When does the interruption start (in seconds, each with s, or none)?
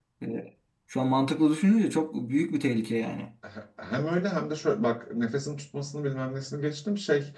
none